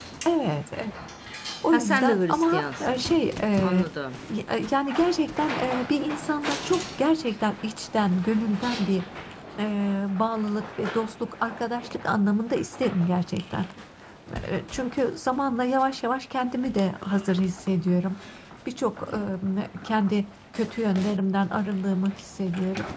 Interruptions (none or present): present